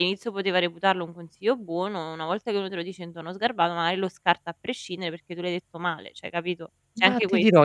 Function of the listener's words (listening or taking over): taking over